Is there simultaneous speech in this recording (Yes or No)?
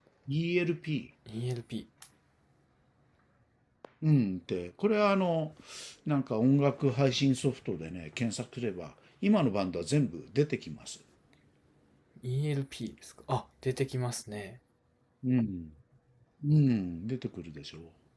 No